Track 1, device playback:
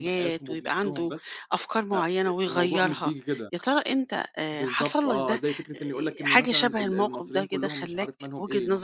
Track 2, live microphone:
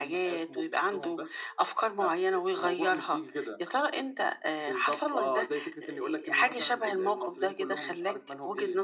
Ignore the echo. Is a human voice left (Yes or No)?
No